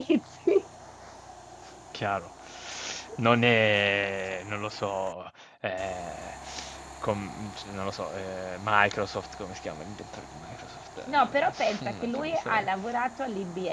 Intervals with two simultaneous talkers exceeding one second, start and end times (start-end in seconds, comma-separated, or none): 11.1-12.7